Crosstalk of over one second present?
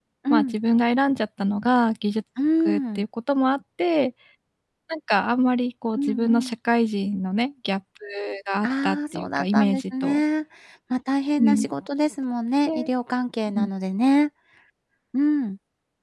Yes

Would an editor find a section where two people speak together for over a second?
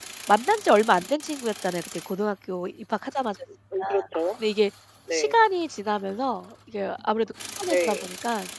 No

